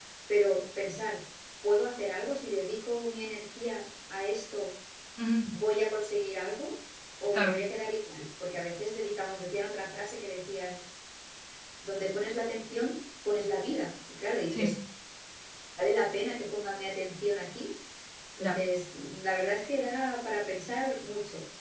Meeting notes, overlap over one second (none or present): none